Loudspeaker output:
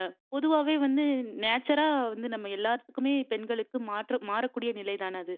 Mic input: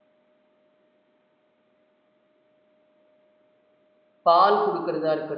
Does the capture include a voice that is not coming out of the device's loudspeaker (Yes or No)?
Yes